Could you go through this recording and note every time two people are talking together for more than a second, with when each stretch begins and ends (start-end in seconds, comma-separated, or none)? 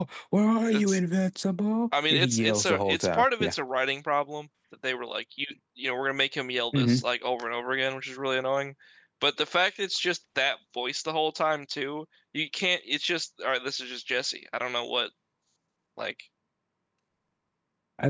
2.1-3.5